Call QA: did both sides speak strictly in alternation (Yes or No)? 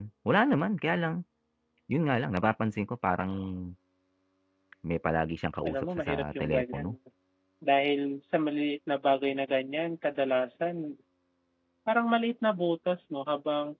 No